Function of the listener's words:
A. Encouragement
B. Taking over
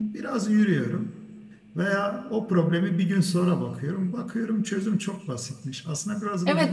B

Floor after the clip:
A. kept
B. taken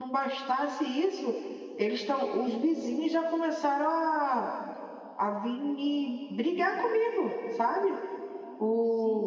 A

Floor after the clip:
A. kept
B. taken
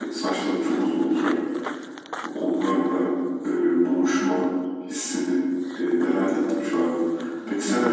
B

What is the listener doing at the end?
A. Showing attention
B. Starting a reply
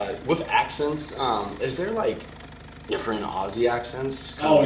B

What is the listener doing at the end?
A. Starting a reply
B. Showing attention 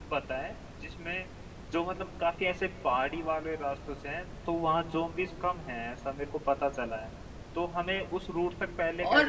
B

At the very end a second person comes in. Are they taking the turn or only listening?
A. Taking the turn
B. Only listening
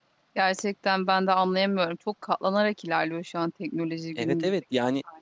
A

